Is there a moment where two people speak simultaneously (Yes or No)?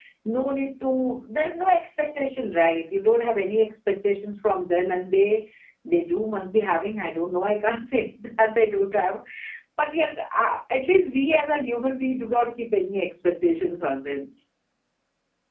No